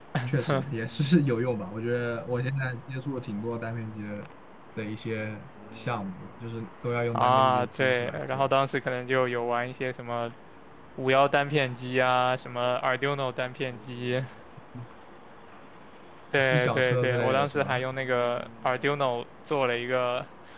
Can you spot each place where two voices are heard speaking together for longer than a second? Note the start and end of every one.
7.1-8.5, 16.5-17.8

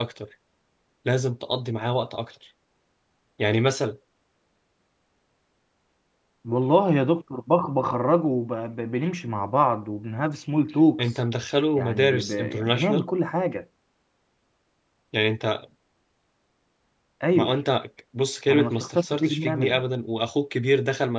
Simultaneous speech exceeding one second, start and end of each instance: 11.8-13.1, 18.5-19.8

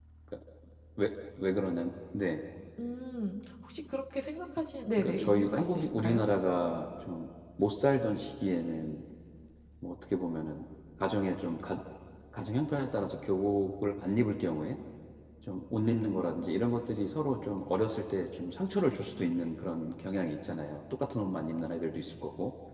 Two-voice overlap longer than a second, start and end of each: 5.0-6.2

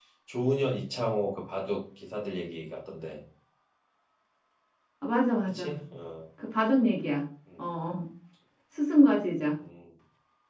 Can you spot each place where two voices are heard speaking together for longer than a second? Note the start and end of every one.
none

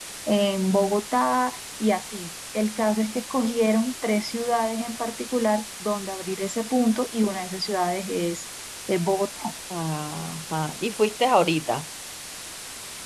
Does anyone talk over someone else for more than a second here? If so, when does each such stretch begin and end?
none

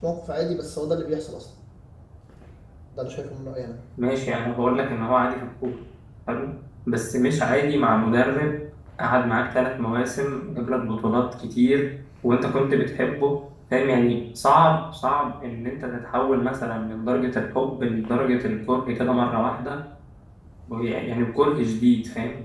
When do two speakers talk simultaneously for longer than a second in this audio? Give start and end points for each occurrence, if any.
none

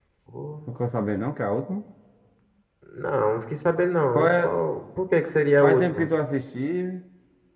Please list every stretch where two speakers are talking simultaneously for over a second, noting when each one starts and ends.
none

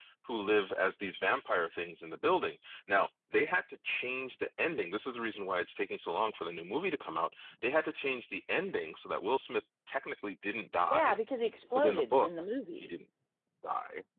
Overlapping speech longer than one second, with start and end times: none

